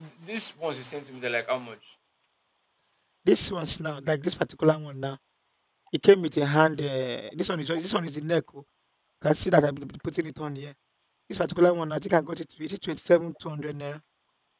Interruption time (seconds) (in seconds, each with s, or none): none